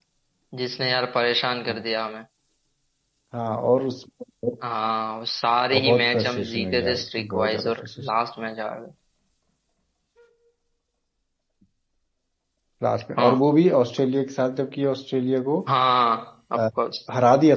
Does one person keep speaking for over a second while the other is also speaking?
Yes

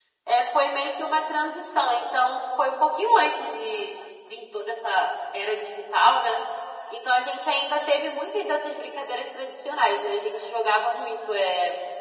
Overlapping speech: No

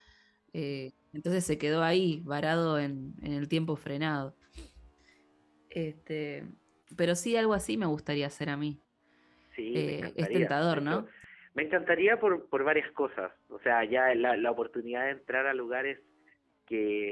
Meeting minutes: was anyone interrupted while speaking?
Yes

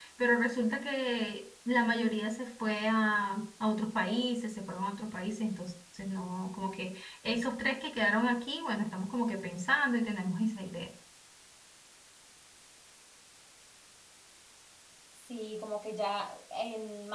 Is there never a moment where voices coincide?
Yes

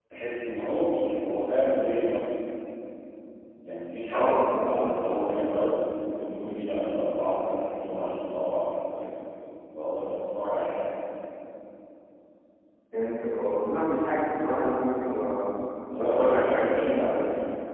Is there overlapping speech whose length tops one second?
Yes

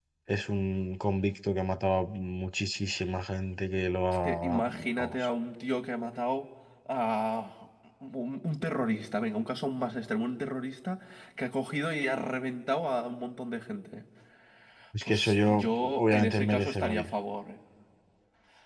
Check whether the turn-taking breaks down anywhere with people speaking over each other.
Yes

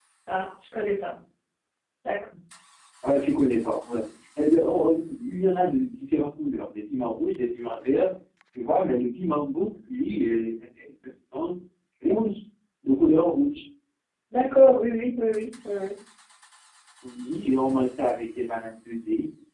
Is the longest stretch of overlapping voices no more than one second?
Yes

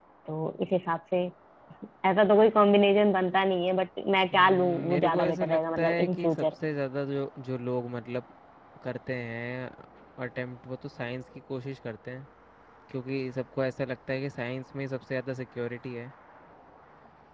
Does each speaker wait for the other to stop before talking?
No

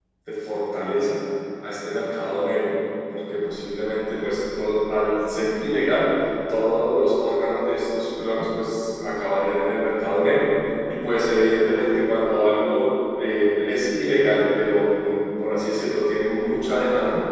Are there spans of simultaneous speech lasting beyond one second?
No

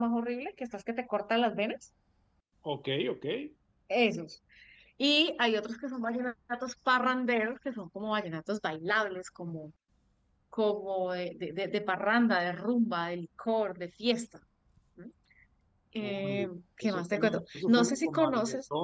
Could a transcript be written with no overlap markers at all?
No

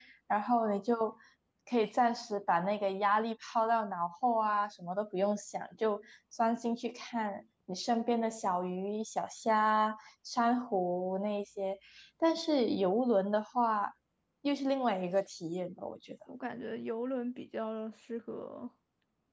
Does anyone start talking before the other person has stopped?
No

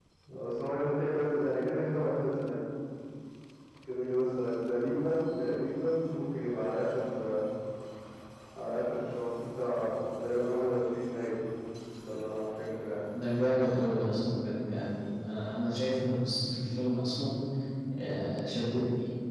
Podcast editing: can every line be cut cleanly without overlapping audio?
Yes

